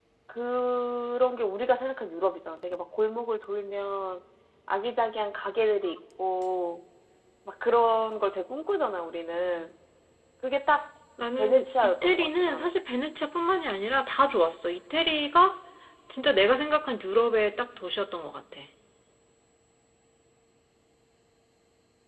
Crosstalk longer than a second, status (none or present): present